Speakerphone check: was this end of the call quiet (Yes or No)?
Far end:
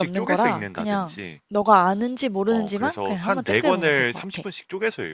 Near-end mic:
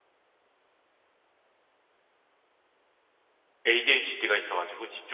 No